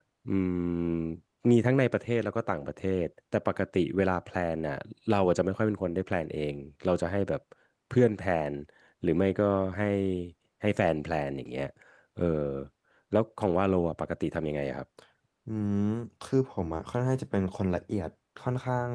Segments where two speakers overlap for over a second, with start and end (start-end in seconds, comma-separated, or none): none